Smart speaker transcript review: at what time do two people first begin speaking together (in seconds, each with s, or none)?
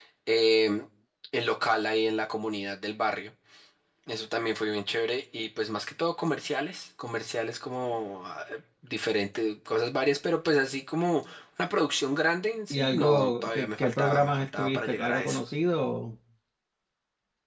12.7 s